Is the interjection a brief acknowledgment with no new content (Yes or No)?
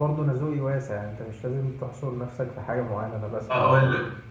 No